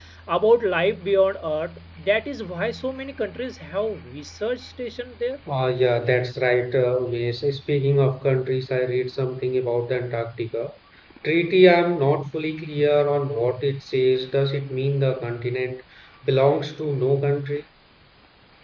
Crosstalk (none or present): none